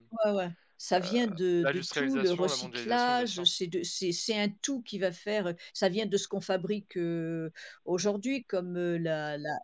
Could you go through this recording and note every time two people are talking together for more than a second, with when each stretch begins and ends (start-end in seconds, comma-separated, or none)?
1.6-3.5